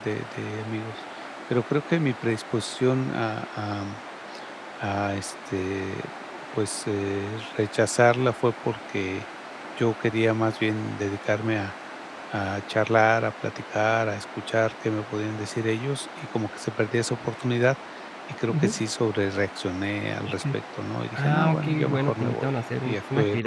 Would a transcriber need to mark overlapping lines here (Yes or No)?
Yes